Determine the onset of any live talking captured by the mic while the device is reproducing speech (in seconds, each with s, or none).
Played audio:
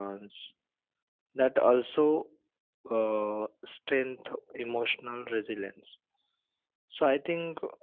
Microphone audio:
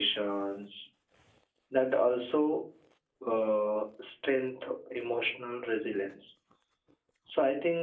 none